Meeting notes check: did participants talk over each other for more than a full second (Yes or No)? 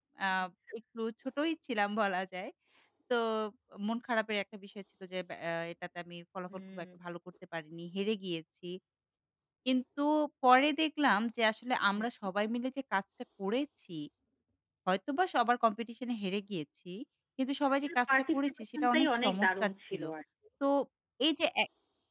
Yes